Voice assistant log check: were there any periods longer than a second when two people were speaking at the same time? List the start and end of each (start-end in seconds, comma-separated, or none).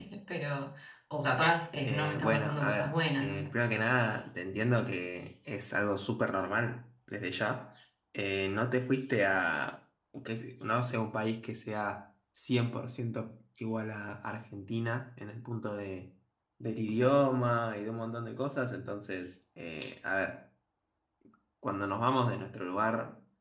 1.8-3.5